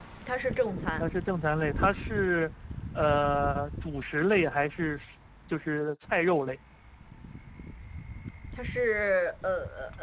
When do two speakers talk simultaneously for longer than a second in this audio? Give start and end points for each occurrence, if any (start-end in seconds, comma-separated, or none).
none